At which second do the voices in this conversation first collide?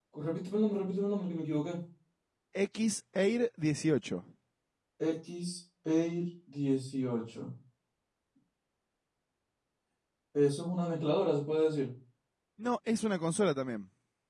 none

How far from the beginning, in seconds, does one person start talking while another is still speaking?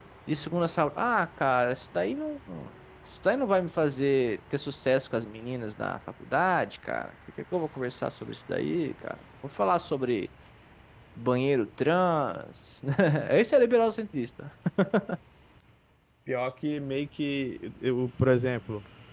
none

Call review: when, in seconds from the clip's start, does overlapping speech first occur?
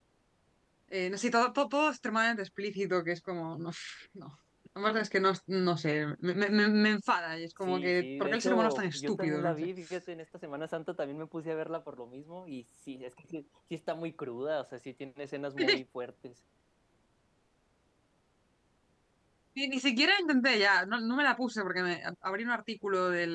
7.6 s

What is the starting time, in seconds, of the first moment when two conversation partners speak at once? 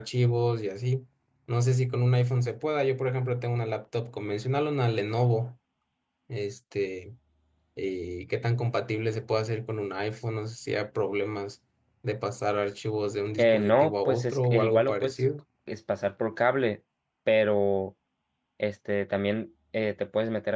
13.4 s

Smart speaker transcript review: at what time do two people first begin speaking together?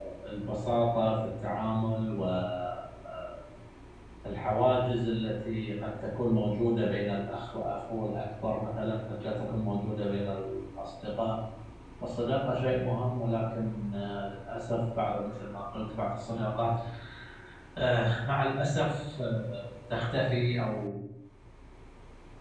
none

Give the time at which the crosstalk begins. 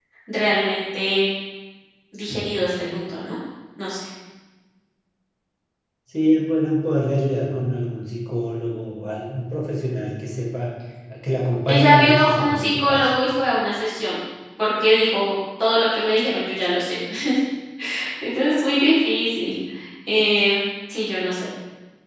11.7 s

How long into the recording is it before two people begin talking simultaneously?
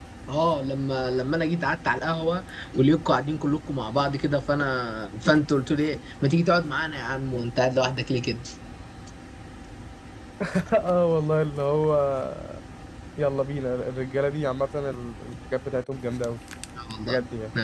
none

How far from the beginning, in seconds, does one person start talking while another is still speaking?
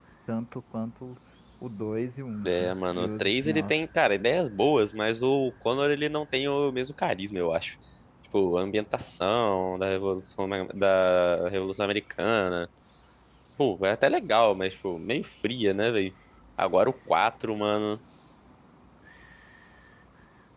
2.4 s

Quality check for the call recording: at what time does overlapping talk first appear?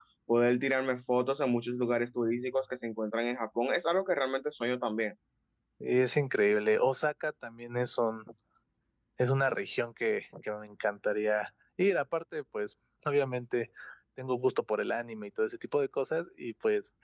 none

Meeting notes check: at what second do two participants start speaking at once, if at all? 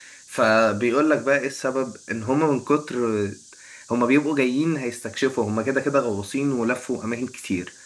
none

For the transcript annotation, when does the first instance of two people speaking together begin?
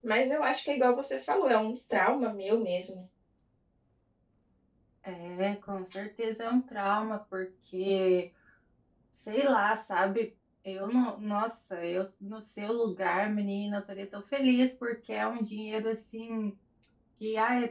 none

